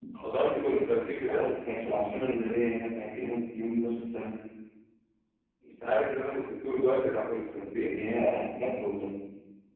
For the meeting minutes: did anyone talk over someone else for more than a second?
No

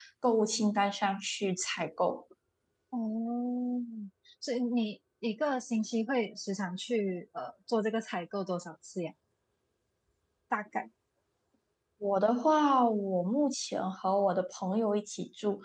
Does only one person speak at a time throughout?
Yes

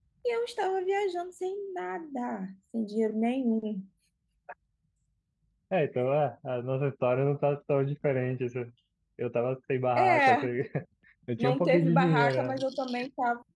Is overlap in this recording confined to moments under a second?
No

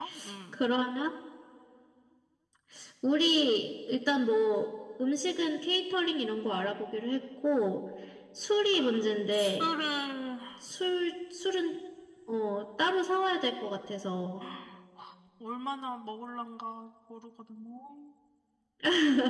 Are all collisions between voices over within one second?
Yes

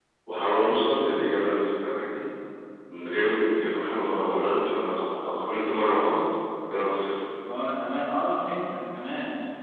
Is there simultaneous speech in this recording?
No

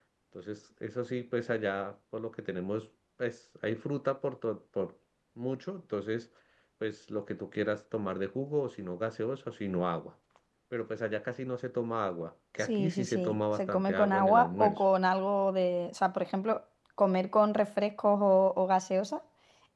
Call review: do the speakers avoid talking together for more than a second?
No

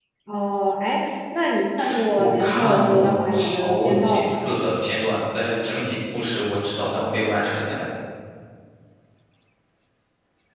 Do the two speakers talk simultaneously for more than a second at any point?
Yes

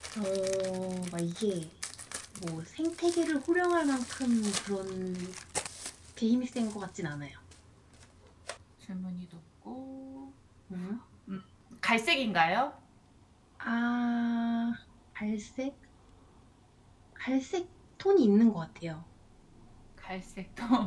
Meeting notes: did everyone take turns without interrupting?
Yes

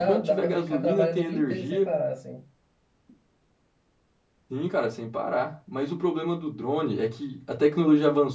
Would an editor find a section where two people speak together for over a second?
Yes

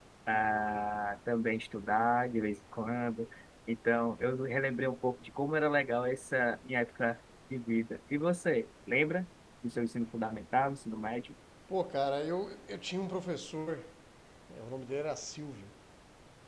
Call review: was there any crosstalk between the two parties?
No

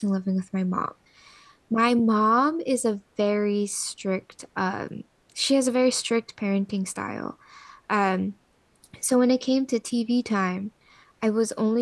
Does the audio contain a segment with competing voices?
No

